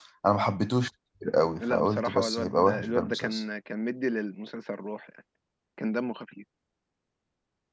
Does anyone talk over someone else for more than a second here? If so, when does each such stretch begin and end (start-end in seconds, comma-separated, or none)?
1.6-3.4